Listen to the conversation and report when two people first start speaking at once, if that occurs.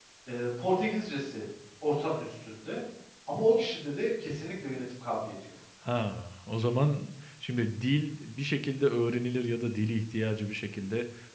none

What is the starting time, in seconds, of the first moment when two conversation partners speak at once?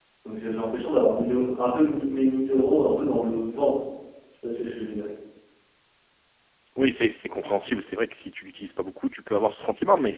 none

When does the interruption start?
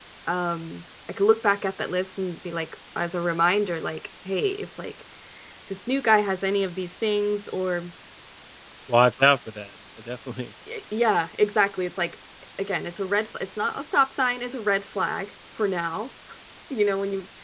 none

